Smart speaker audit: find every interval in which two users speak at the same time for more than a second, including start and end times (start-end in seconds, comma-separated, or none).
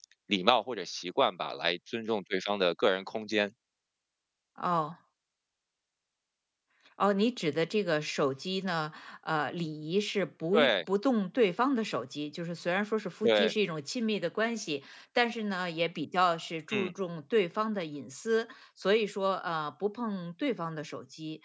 none